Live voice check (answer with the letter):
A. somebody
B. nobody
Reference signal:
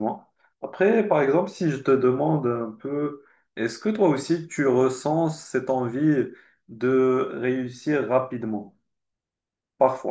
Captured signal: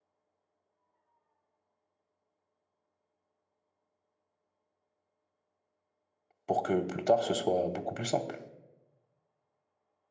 A